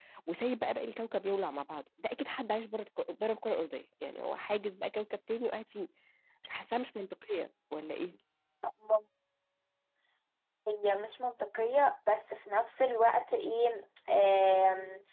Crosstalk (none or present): none